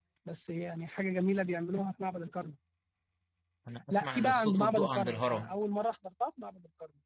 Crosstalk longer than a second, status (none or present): present